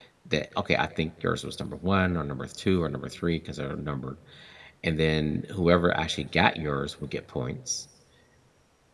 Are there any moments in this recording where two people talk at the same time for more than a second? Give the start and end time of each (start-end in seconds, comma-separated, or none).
none